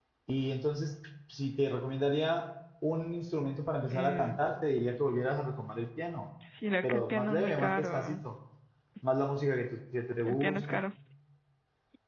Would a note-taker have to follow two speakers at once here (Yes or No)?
Yes